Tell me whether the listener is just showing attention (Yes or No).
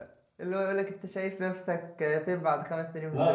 No